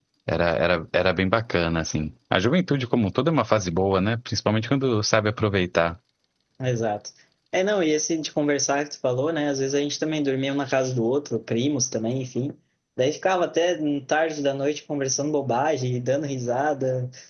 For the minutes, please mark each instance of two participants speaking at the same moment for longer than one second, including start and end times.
none

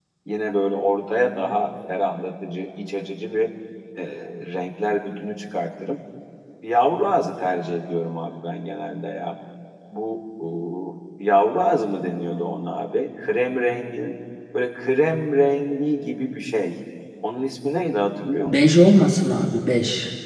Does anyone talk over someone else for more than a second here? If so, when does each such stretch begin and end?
none

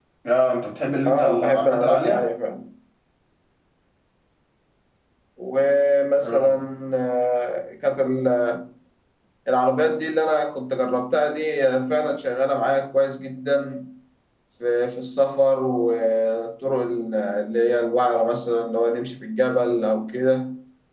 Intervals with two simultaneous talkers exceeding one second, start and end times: 1.0-2.2

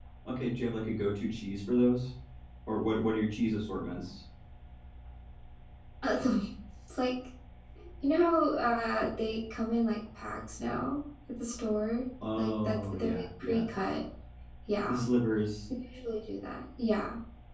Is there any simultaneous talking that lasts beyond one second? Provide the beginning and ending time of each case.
12.4-13.7

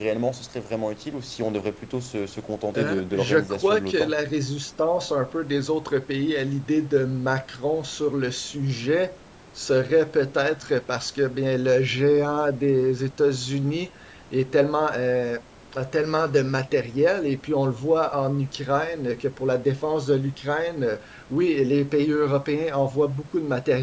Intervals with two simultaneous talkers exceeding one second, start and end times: 2.8-4.1

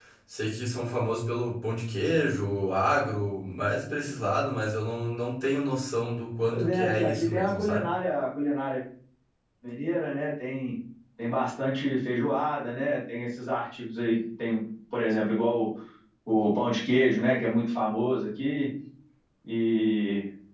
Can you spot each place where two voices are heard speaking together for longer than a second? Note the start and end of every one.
6.5-7.9

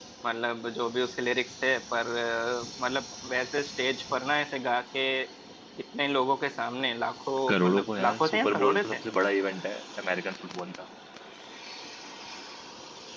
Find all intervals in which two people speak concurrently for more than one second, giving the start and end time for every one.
7.5-8.9

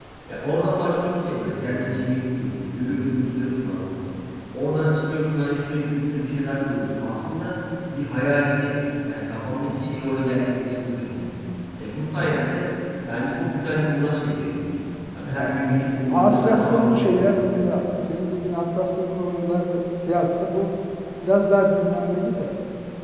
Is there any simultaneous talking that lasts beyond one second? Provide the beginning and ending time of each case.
16.1-17.7

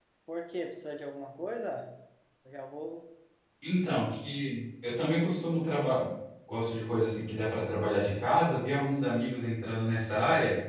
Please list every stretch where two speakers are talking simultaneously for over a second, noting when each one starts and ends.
none

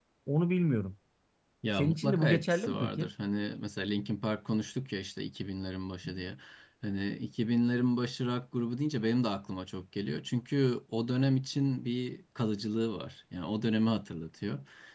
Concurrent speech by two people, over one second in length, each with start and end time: 1.8-3.1

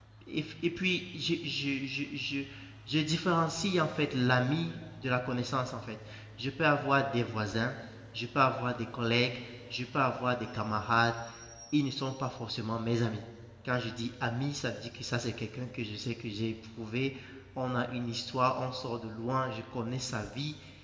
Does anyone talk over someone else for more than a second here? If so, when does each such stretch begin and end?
none

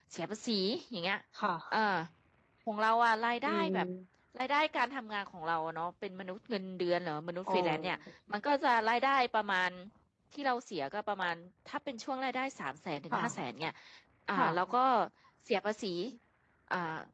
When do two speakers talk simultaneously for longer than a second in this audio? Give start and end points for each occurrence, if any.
none

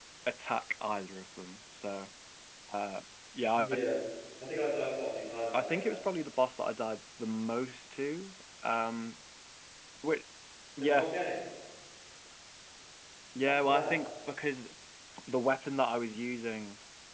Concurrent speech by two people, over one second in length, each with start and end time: none

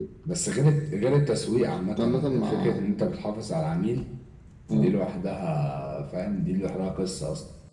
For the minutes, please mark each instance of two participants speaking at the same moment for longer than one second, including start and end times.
1.5-2.8

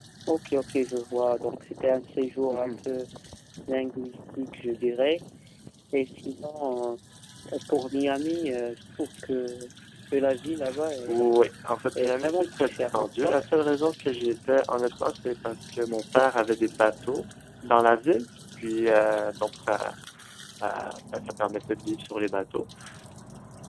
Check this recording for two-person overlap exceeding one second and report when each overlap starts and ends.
12.0-13.4

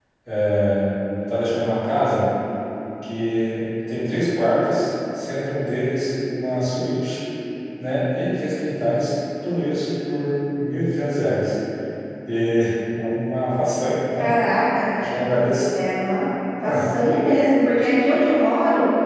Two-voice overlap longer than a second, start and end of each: none

